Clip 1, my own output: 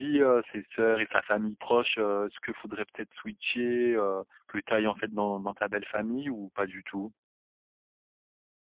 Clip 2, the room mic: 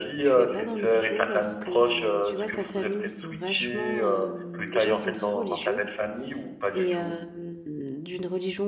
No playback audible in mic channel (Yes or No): No